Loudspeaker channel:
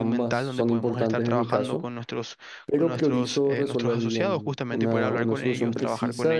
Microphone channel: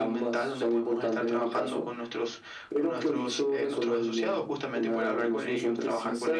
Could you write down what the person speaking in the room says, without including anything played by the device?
none

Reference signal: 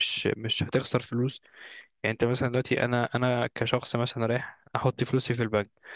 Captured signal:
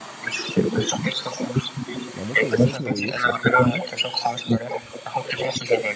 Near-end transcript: ما ممكن يستثمر ويخسر فاهم؟

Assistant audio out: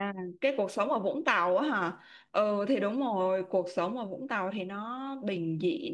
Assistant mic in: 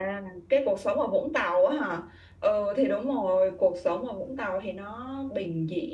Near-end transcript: none

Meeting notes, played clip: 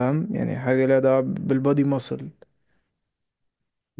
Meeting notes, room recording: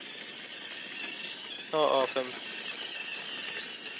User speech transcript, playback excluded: اه اه فهمت

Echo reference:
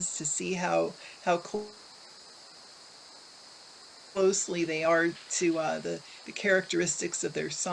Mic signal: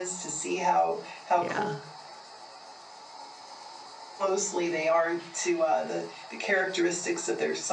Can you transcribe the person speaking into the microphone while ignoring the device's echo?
Yeah.

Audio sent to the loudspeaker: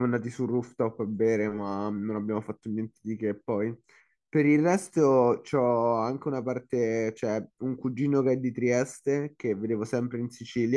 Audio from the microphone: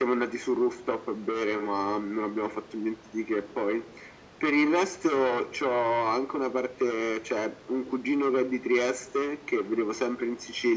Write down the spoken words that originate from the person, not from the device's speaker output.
none

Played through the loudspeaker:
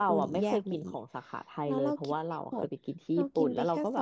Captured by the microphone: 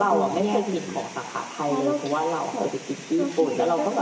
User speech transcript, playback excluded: none

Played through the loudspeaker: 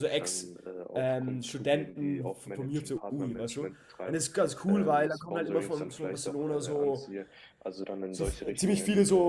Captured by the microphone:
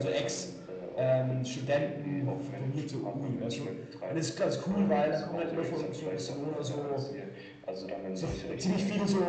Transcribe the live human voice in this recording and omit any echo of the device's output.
none

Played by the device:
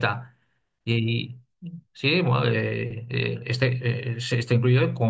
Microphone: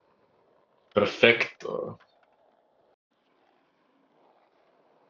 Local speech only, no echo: Perfecto.

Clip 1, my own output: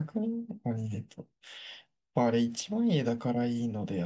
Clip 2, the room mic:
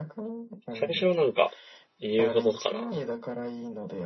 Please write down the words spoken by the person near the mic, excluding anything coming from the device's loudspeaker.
最初はなんか、言うほどかな。

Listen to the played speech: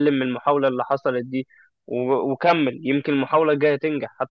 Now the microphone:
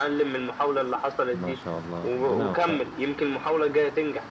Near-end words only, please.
ما شاء الله ربنا يوفقك

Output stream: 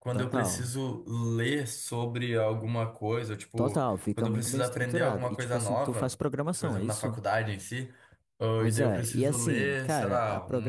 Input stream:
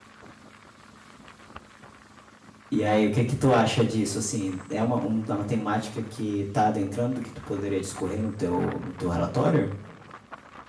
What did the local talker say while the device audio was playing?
E aí, o que que tu acha disso? Assim, é uma, um- uma temática que tá adentrando que tu poderia discorrer no teu, no teu relatório?

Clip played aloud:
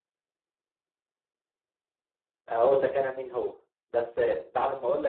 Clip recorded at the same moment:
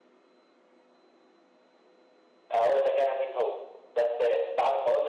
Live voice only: none

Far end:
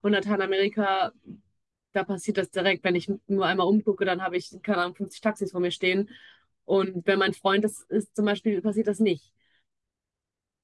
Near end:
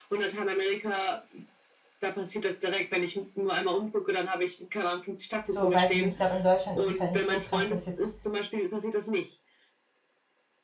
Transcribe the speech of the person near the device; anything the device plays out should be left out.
so weiß ich nicht. Ich glaube, in Deutschland ist es halt nicht so krass, dass jetzt

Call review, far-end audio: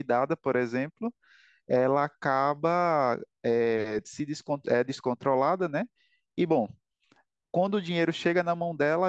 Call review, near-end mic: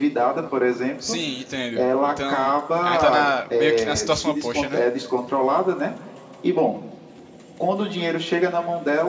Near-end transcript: Sim, entendo. Então, a gente tá na- meio que na situação oposta, né?

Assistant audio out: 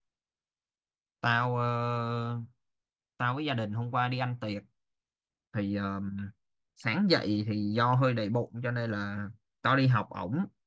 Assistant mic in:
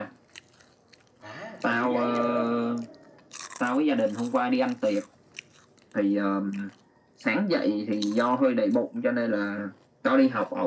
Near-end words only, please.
Hả? Tài liệu giấy hả?

